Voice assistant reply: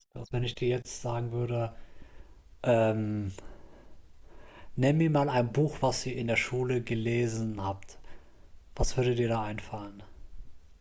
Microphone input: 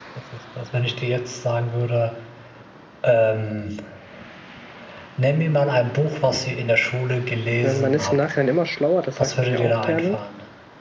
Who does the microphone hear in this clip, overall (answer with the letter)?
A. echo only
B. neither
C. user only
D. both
D